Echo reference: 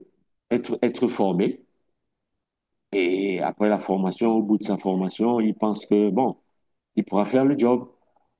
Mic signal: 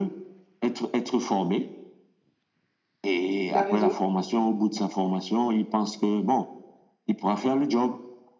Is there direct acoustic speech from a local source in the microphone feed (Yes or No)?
Yes